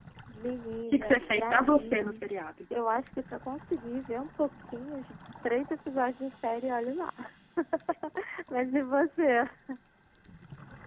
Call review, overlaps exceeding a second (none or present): present